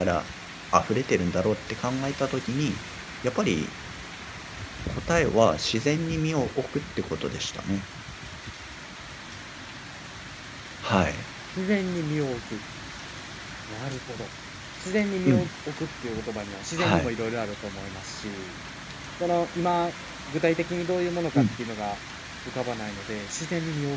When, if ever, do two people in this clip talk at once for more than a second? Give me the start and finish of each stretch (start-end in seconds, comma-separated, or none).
none